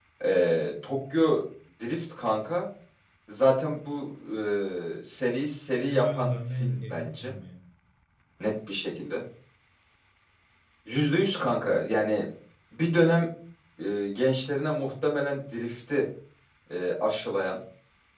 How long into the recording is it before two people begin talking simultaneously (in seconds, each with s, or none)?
5.7 s